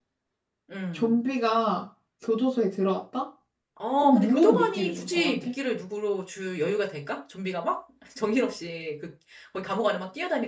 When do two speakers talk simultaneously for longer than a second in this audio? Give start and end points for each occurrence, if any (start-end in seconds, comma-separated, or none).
4.0-5.5